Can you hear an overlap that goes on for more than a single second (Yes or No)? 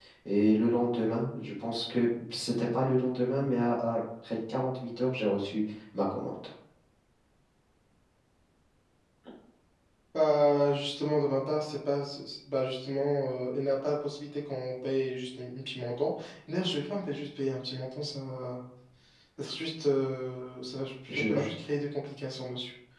No